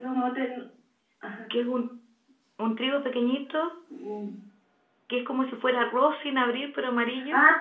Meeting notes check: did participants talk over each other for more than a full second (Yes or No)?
No